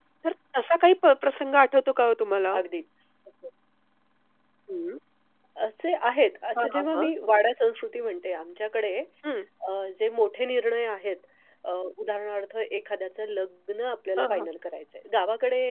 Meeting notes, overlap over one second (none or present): none